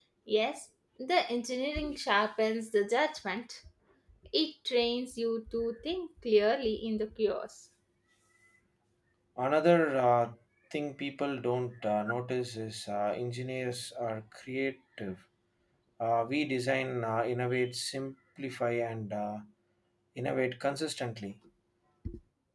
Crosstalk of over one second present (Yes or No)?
No